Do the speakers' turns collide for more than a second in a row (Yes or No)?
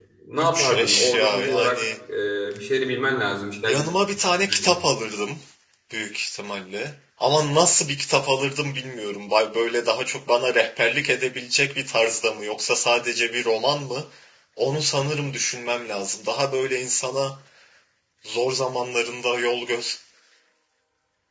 Yes